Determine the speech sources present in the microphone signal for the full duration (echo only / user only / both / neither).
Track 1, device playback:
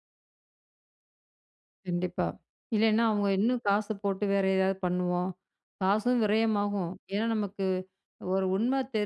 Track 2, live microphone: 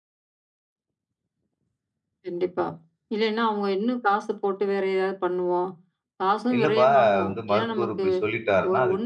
both